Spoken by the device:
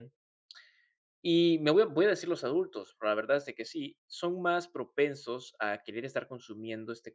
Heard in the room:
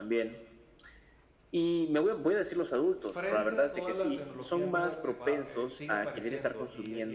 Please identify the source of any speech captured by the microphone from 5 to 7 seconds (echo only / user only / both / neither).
both